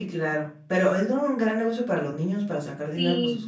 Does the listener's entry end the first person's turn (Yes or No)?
Yes